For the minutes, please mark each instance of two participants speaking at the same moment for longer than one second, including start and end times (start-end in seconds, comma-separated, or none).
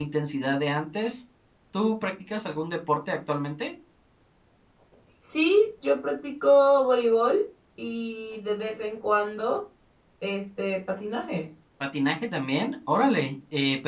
none